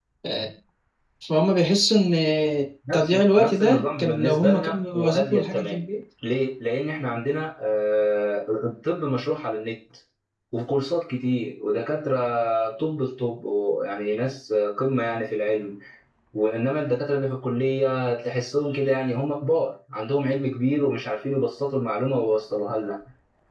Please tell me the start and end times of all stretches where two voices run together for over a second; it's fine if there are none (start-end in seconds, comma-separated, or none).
2.9-5.8